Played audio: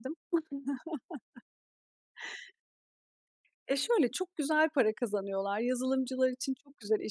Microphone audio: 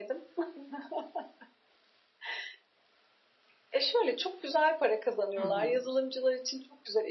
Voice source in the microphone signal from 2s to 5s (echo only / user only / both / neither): echo only